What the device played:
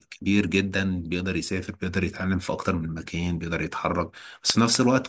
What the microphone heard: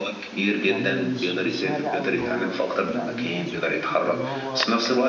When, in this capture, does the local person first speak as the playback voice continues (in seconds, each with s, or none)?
0.7 s